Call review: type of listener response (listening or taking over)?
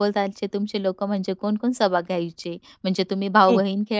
listening